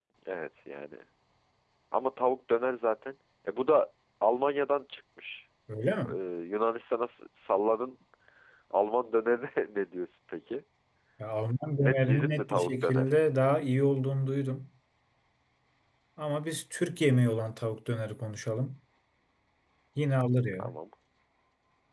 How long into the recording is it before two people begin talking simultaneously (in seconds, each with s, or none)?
11.8 s